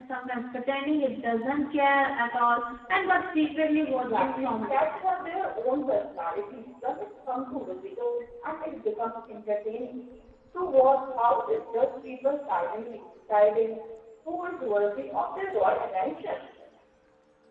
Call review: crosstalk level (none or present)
present